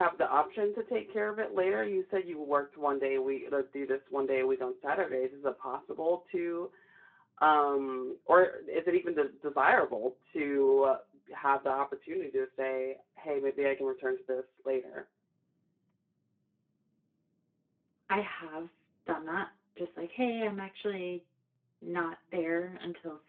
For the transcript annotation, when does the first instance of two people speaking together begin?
none

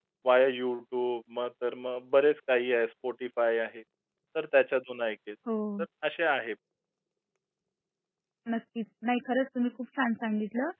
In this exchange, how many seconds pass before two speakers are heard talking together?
none

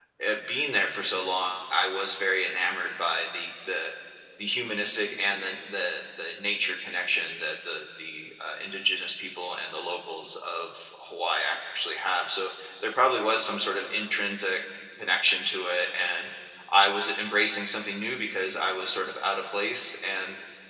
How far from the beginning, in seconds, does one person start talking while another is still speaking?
none

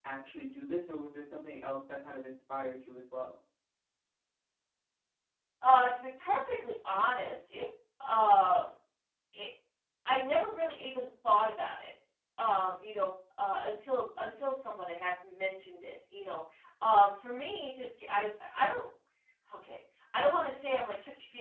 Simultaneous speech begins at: none

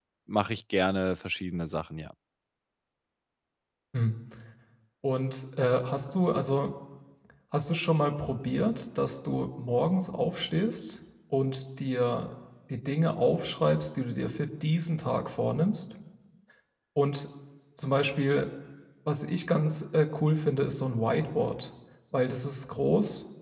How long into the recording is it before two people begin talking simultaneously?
none

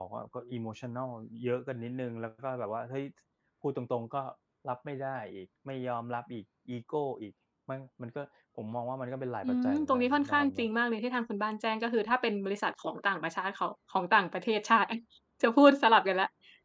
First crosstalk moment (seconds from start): 9.4 s

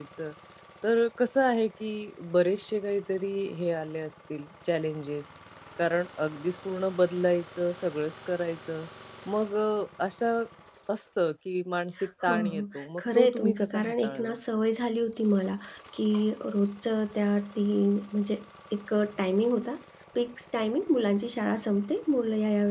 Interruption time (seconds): 12.3 s

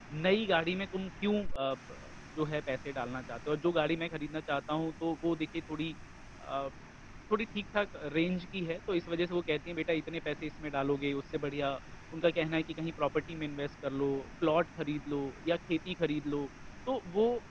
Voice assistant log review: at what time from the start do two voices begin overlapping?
none

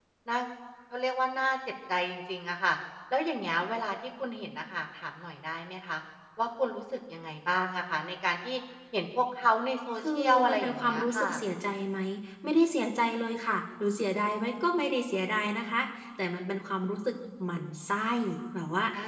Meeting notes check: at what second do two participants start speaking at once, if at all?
10.0 s

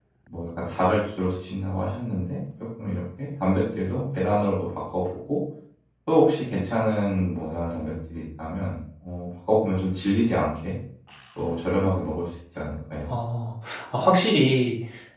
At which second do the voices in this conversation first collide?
none

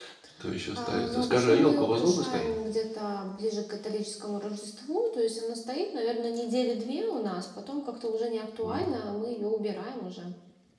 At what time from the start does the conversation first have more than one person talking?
0.8 s

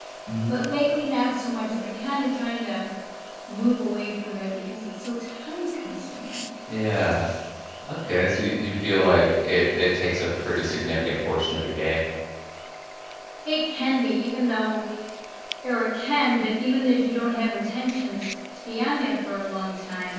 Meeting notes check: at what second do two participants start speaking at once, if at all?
none

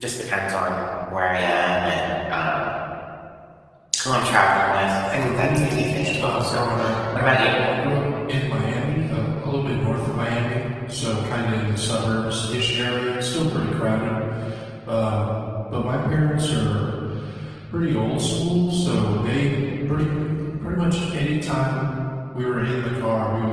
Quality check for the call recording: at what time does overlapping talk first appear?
5.1 s

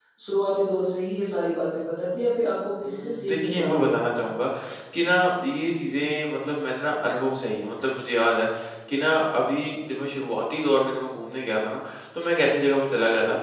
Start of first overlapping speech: 2.8 s

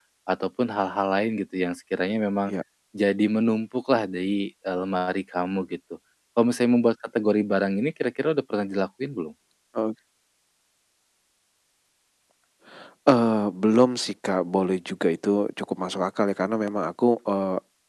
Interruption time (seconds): none

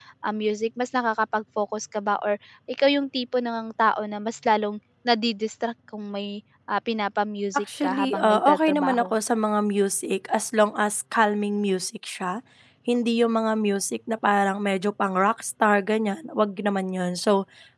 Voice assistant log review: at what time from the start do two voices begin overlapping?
7.7 s

